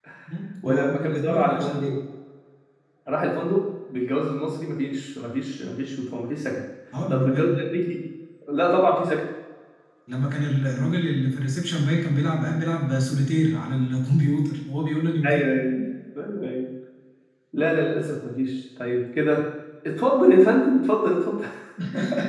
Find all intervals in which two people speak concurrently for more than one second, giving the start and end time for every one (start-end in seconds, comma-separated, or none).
0.6-2.0